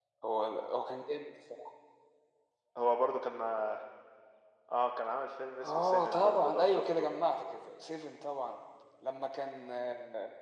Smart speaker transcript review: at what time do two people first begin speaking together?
5.6 s

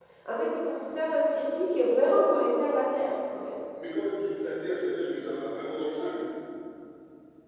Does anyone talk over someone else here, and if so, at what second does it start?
none

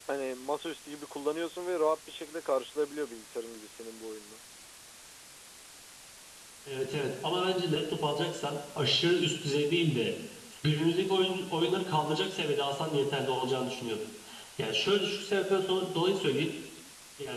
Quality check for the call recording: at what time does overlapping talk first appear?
none

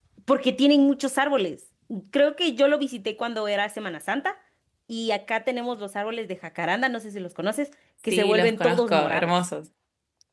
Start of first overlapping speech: 8.1 s

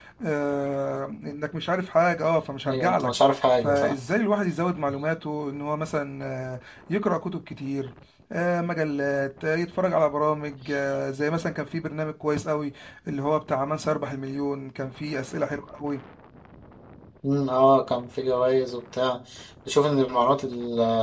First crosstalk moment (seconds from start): 2.6 s

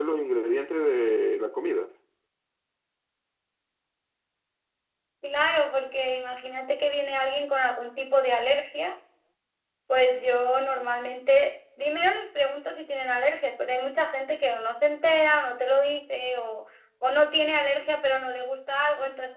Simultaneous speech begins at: none

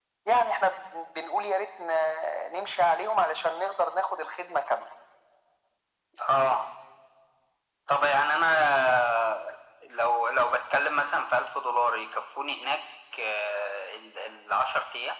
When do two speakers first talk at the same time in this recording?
none

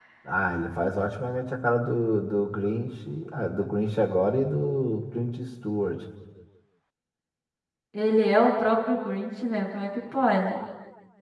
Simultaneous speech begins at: none

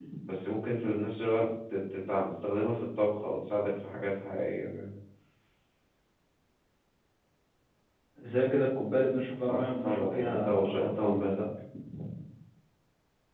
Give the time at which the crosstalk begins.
9.4 s

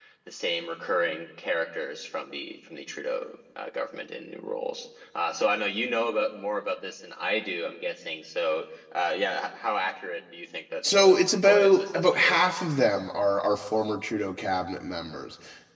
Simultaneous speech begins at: 10.8 s

